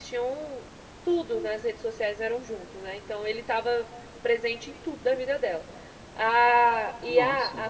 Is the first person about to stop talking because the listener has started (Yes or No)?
No